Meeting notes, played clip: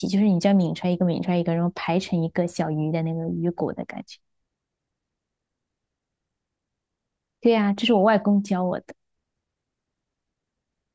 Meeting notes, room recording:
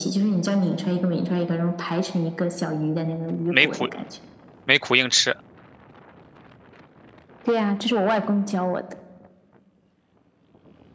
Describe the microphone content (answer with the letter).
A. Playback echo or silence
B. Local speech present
B